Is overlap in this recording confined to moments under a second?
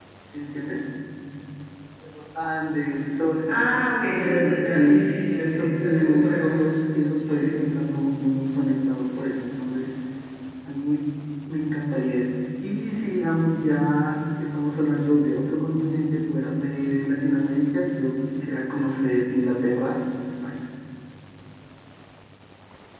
No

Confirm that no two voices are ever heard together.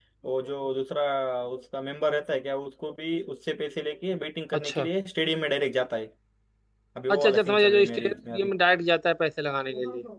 No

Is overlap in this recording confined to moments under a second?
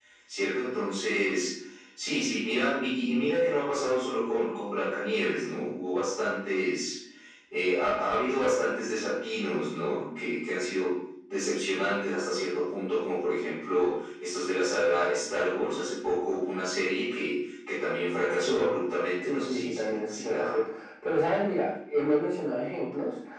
No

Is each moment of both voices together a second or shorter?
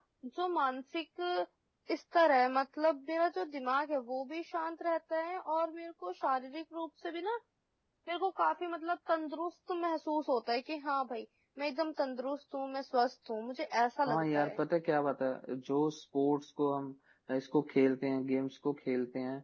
Yes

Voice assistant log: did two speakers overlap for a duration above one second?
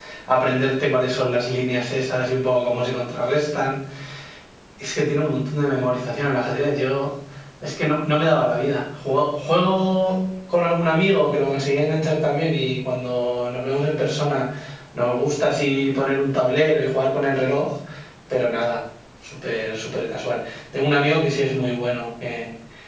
No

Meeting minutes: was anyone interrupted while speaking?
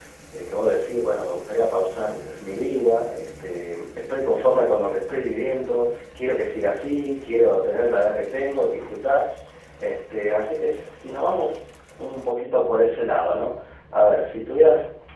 No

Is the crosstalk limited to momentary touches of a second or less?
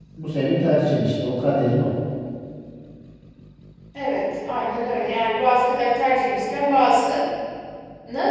Yes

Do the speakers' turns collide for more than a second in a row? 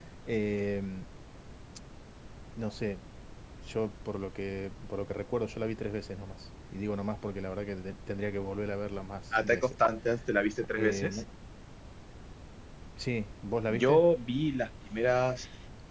No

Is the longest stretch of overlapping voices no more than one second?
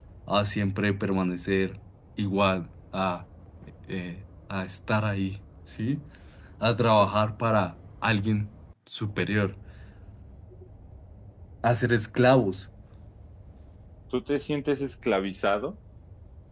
Yes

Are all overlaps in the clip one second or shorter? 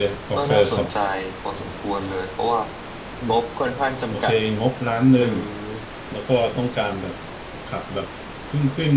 Yes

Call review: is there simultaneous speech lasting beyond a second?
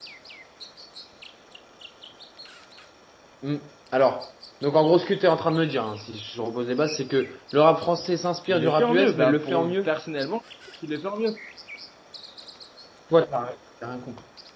Yes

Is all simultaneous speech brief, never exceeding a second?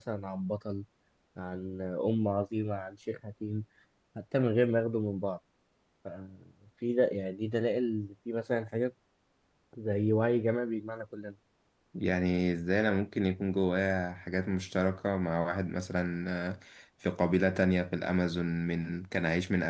Yes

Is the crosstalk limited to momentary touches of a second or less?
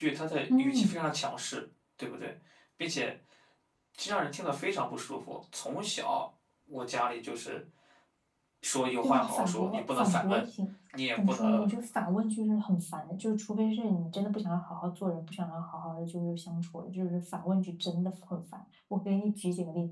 No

